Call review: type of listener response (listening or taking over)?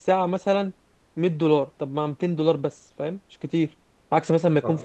listening